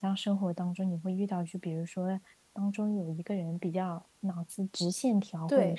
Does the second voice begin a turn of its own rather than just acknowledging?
No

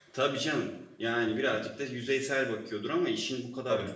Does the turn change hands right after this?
No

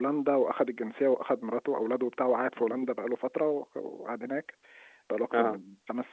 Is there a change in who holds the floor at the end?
No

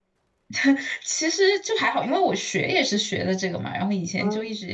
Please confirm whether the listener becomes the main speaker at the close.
No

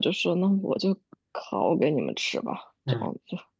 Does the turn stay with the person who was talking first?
No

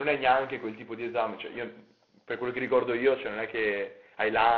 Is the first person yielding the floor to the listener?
No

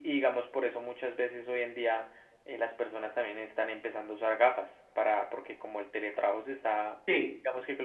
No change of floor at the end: Yes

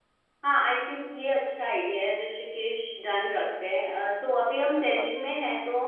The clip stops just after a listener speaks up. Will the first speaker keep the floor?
Yes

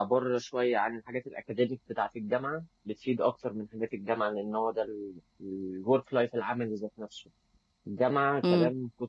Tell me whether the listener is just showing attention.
Yes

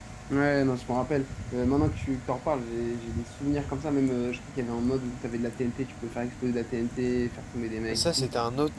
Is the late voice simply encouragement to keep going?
No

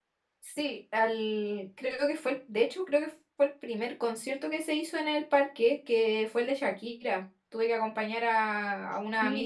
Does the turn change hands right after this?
Yes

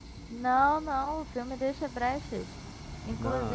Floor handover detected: No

